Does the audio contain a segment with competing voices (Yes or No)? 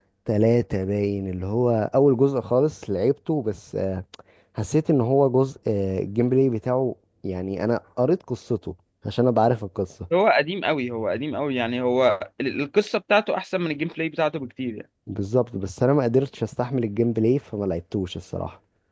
No